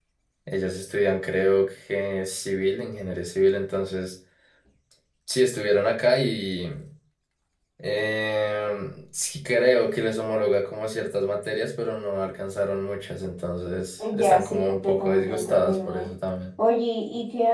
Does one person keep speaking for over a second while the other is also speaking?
Yes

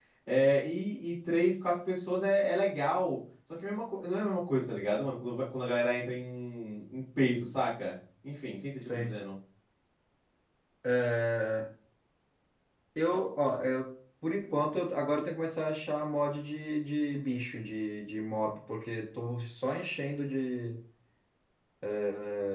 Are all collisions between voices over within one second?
Yes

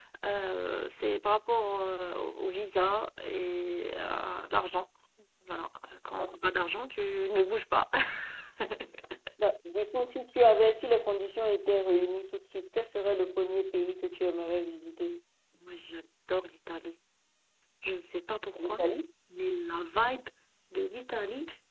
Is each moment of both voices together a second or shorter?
Yes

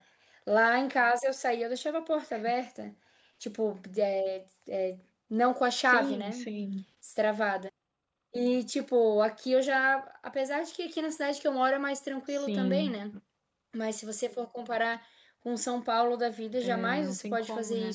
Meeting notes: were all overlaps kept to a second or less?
No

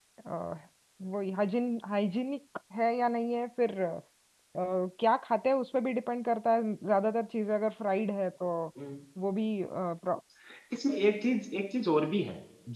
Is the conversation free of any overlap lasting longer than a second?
Yes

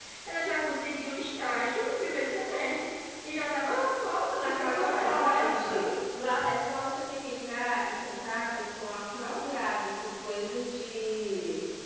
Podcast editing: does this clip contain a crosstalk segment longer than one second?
Yes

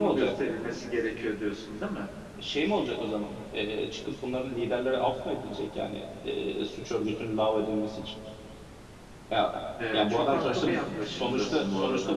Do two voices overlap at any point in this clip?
Yes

